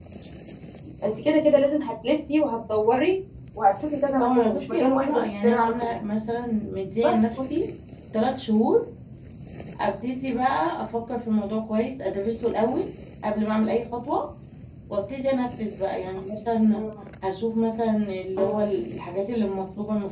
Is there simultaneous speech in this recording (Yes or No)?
Yes